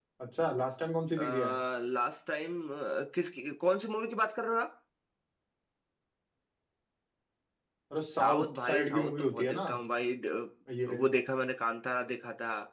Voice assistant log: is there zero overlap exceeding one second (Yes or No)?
No